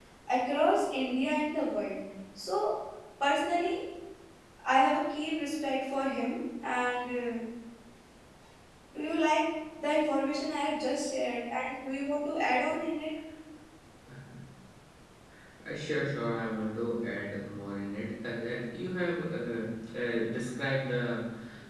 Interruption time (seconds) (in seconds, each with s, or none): none